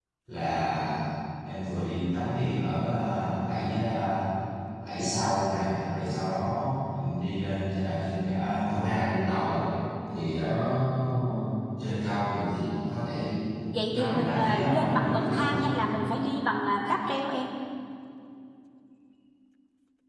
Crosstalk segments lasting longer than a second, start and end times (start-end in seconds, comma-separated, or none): 13.9-15.6